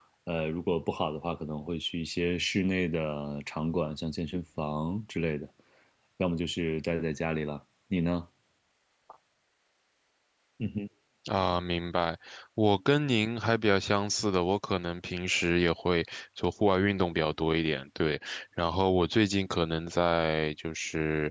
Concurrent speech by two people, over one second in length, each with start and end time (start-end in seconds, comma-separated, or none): none